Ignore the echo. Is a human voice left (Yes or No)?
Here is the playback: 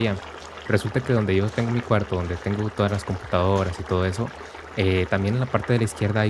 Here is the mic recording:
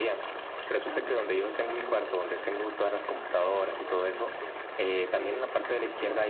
Yes